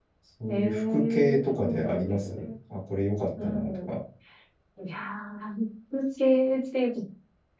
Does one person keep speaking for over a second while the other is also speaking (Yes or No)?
Yes